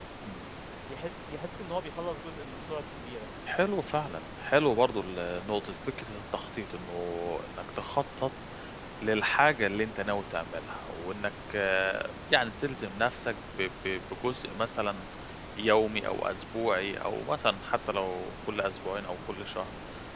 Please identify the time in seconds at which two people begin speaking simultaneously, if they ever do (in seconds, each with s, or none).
none